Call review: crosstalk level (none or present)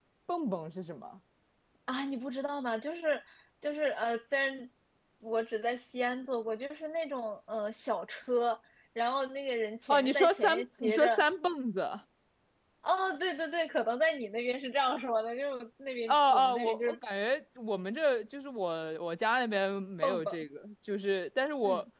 present